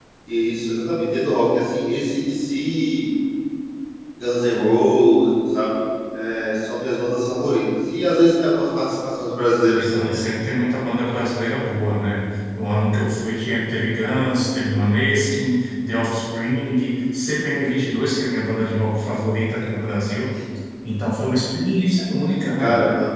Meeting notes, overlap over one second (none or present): none